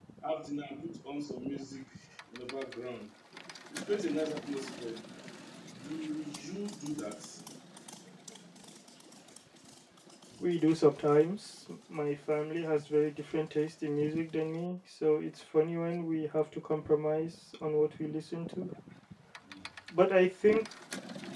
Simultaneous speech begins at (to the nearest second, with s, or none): none